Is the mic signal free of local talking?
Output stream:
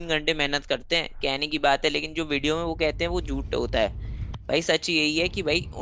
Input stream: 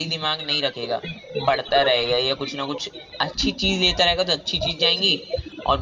No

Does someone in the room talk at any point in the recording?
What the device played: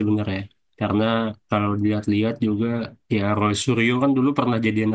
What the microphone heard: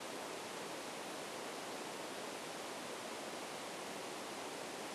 No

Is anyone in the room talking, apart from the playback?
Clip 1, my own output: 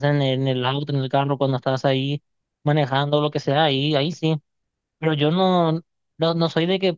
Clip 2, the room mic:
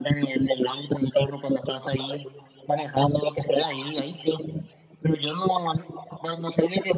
No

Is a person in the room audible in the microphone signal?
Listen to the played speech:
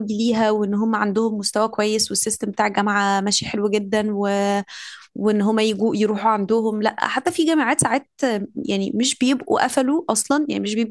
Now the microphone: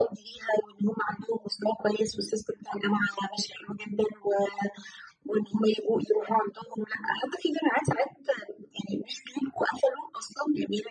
No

